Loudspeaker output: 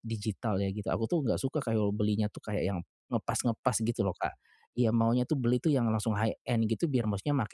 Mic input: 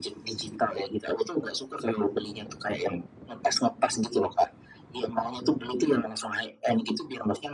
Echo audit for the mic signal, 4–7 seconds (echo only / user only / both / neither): echo only